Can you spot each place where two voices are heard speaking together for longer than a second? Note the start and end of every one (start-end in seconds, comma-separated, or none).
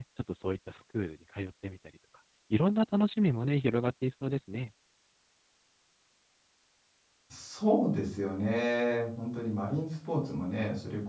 none